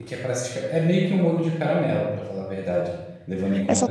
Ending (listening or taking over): taking over